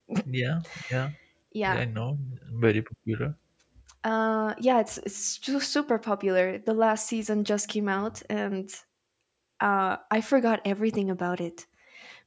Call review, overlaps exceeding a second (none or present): none